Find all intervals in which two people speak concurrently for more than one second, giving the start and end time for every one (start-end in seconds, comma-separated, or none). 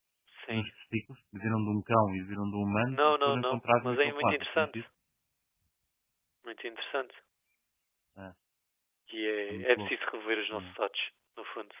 2.9-4.8